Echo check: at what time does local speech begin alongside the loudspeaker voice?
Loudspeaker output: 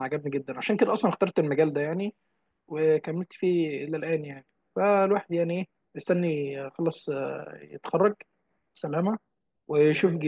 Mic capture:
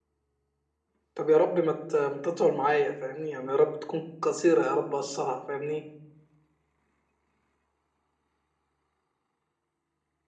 1.1 s

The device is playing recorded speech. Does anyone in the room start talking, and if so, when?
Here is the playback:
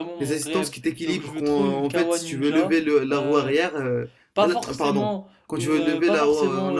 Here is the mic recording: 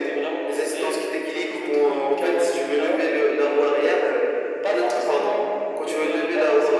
none

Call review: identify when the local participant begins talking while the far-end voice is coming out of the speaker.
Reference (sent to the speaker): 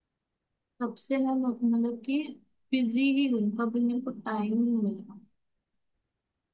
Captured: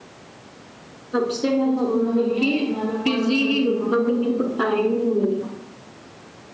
1.6 s

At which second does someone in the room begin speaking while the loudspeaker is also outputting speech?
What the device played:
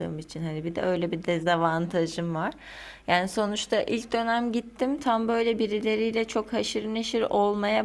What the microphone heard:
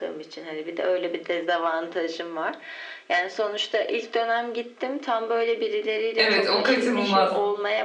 6.2 s

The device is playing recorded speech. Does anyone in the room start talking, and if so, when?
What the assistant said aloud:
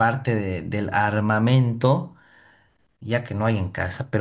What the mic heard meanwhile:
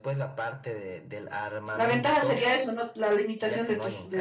1.7 s

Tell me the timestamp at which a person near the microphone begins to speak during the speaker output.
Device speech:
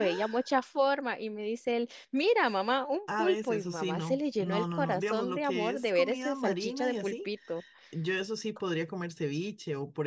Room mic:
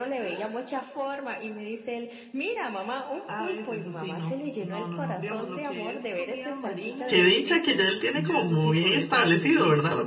7.1 s

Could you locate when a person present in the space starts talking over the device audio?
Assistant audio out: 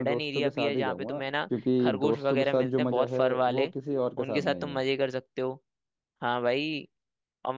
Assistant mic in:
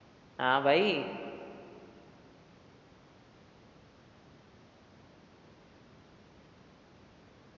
0.4 s

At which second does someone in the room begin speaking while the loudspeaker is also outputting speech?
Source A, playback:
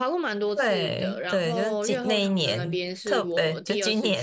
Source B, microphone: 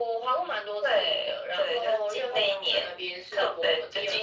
none

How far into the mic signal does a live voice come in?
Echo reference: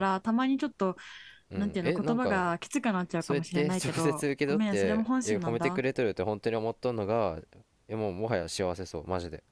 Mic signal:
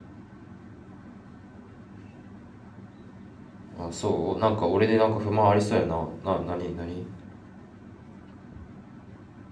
3.8 s

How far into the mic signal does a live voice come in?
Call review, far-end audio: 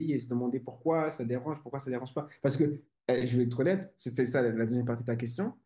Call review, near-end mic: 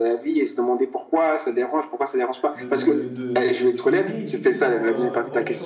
2.5 s

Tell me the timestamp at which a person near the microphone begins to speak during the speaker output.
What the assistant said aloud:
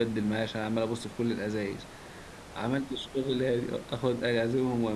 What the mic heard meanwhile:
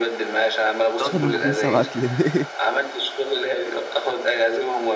1.0 s

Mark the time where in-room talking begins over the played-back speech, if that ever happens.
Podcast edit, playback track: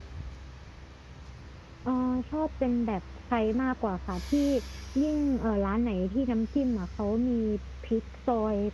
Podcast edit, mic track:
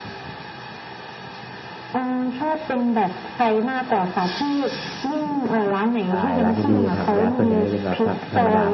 6.0 s

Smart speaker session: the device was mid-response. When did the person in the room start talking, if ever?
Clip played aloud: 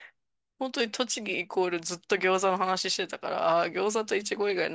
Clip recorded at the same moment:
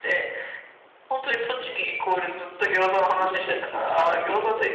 3.0 s

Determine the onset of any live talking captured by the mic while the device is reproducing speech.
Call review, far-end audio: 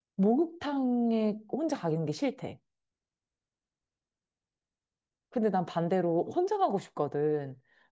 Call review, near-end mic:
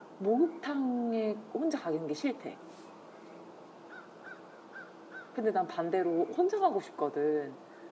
none

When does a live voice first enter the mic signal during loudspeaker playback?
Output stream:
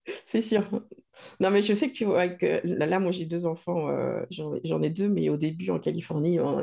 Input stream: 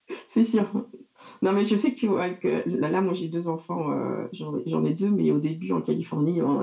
none

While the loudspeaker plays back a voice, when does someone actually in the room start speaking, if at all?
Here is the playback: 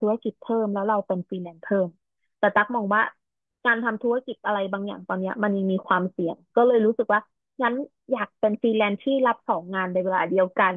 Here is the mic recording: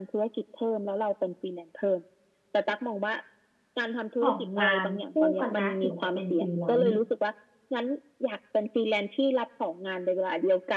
4.2 s

